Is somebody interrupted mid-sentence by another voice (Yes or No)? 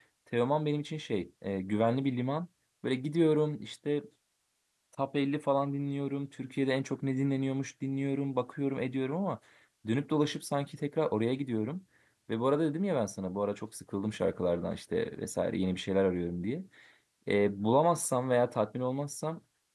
No